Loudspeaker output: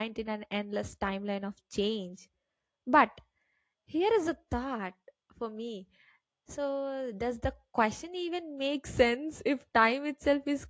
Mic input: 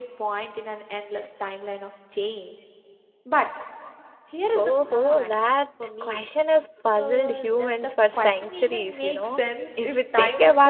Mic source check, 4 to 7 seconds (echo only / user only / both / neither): both